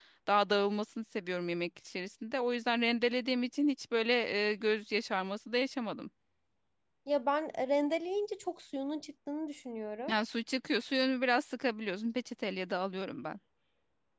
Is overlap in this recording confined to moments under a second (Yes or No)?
Yes